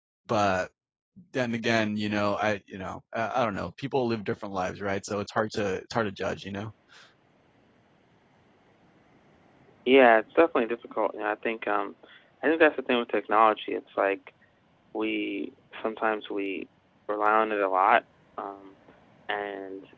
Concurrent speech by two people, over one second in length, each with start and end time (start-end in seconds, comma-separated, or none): none